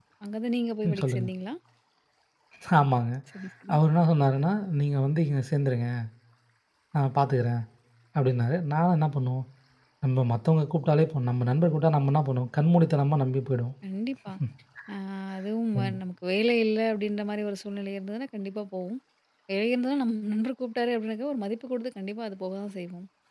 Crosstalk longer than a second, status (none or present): none